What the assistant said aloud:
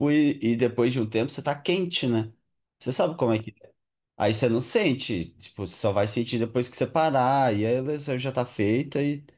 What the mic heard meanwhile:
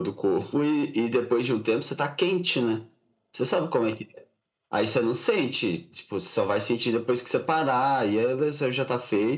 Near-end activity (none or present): none